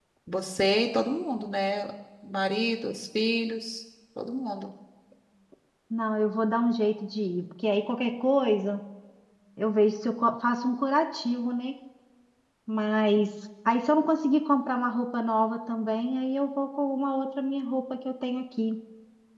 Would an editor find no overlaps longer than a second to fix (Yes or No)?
Yes